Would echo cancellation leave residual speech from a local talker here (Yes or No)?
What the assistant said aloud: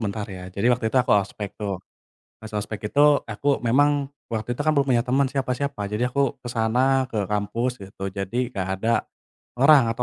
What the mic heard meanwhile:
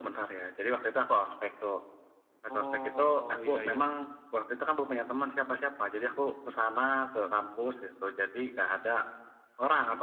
Yes